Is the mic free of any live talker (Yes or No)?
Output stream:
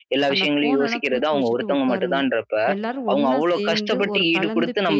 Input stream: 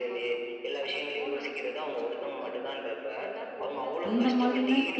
No